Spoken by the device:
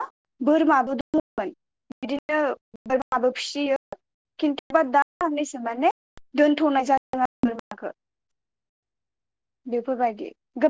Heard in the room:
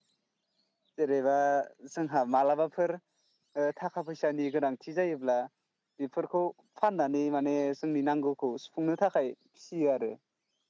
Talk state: user only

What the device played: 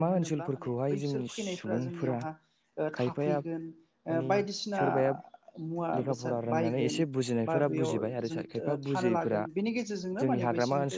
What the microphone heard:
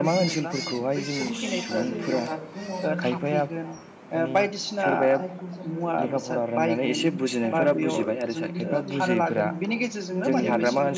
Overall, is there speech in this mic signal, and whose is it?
both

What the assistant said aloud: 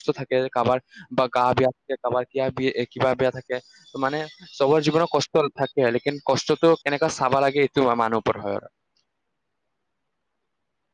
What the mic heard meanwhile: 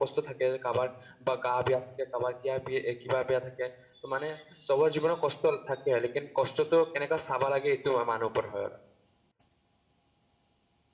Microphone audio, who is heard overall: echo only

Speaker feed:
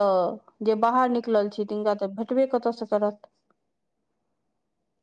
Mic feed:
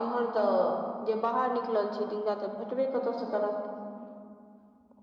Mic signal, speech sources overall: echo only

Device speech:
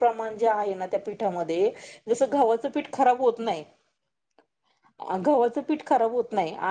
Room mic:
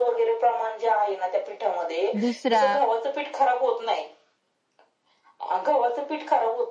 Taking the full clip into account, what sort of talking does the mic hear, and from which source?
both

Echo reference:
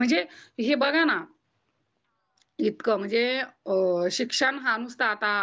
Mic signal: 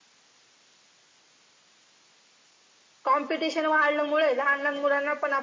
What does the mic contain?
user only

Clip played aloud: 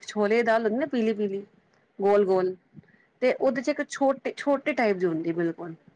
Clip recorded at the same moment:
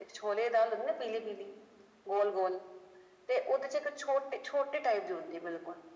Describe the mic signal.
echo only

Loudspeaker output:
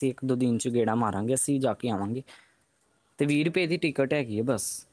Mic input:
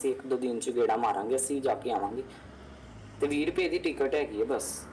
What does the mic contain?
echo only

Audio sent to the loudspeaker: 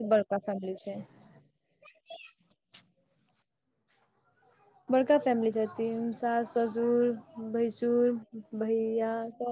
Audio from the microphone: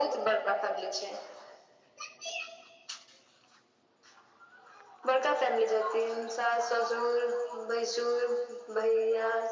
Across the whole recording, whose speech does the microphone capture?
echo only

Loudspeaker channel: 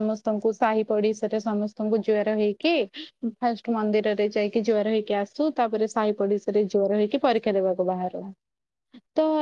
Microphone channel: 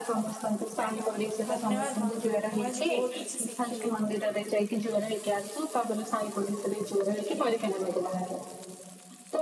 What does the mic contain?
both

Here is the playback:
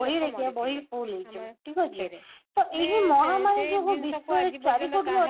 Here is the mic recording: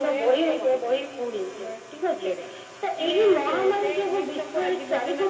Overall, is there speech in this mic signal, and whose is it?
echo only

